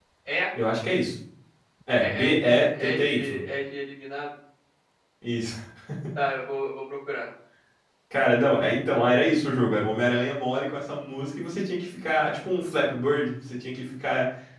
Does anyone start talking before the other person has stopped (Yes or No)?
Yes